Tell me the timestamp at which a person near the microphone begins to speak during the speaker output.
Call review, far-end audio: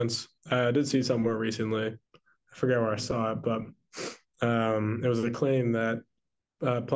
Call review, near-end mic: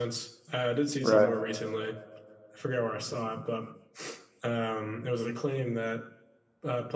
1.0 s

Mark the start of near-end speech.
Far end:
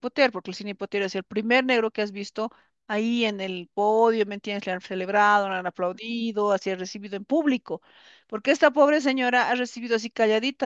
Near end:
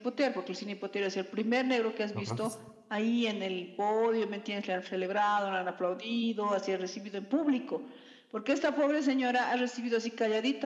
2.2 s

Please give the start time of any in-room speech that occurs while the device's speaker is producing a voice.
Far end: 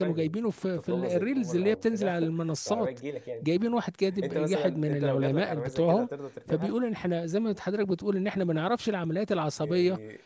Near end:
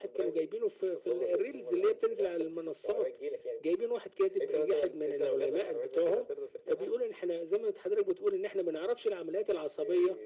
none

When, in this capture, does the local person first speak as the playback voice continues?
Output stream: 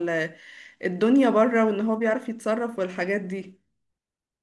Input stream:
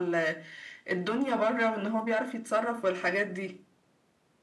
none

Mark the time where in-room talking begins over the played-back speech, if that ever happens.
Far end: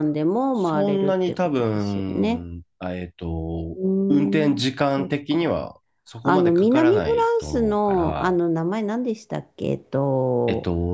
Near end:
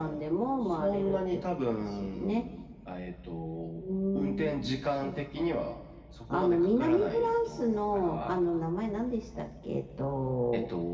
none

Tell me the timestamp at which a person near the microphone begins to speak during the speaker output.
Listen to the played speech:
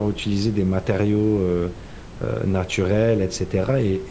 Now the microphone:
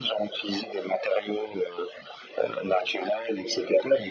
none

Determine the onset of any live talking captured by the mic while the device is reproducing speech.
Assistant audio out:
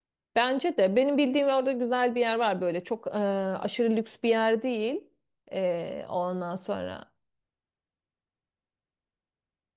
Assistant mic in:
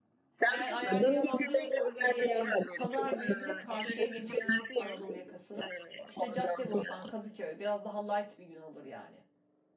0.5 s

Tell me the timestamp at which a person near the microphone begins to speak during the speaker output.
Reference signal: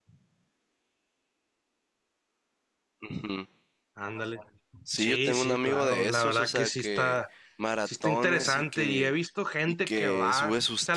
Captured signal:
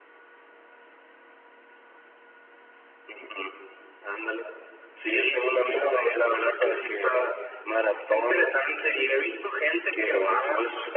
none

